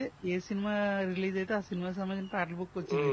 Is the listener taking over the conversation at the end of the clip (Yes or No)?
Yes